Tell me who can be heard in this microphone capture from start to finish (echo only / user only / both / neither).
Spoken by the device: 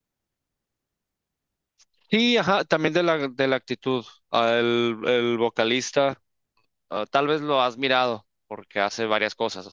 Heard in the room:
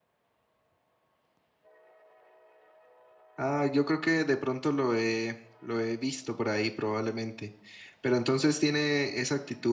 user only